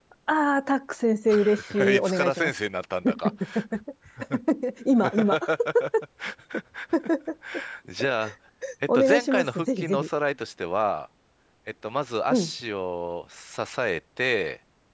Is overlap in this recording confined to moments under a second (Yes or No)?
No